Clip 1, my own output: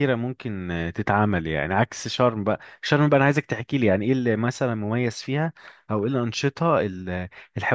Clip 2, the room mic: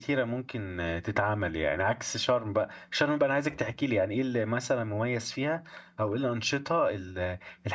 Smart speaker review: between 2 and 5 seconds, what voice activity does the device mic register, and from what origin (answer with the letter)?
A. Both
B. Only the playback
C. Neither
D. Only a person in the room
B